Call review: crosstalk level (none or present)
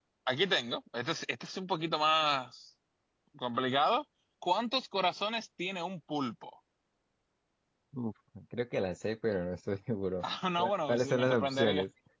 present